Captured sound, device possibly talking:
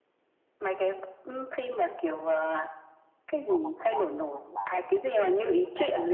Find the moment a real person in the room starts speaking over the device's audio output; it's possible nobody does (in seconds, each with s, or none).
3.4 s